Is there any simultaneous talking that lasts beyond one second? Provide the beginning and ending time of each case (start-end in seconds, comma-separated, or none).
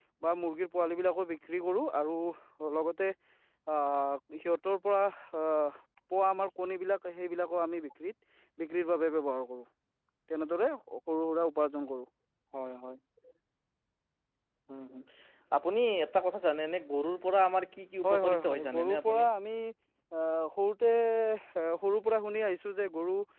18.0-19.2